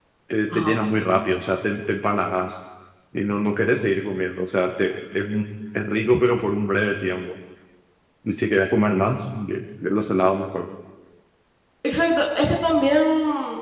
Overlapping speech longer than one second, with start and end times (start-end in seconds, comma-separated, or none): none